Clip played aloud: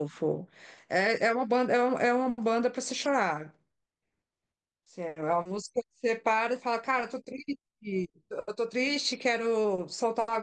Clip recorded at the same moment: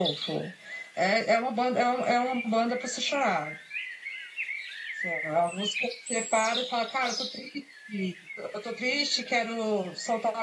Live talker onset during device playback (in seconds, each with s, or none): none